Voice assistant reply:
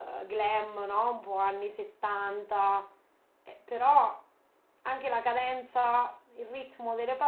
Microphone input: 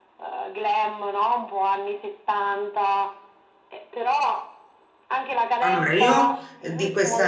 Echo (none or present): present